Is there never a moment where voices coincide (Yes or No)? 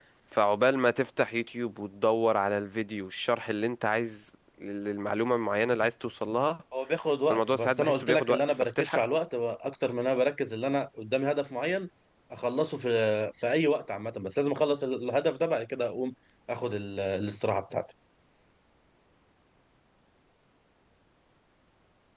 No